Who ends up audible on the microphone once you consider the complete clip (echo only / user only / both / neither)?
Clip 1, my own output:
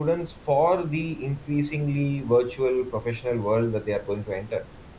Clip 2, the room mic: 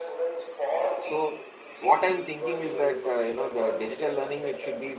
both